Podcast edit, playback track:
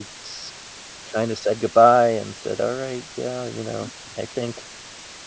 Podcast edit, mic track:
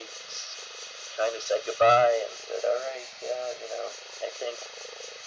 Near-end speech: none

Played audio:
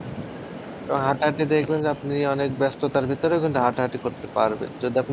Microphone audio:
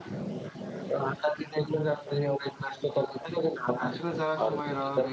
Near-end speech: present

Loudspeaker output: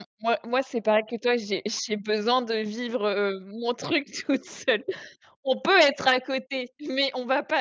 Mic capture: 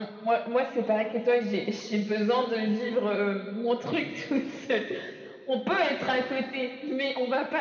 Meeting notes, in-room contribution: none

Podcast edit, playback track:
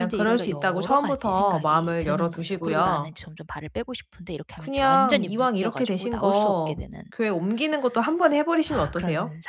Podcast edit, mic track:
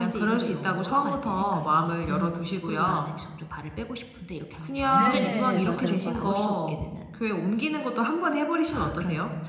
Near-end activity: present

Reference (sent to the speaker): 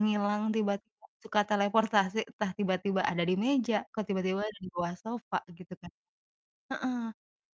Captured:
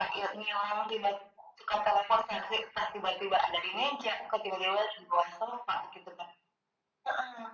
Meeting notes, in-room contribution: none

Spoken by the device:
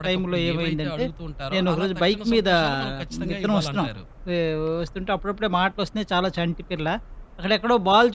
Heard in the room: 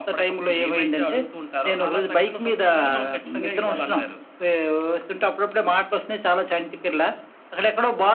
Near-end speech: none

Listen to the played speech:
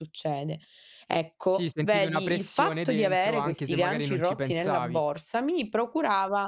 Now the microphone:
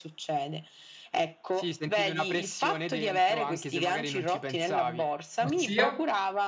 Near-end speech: present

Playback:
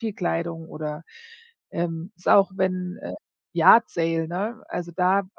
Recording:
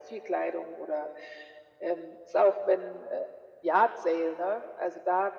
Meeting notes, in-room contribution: none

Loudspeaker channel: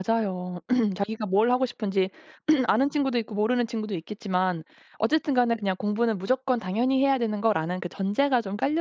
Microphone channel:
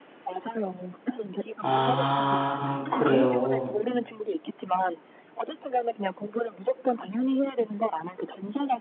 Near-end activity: present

